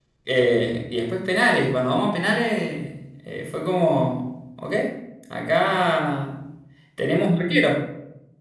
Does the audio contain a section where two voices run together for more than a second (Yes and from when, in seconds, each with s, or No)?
No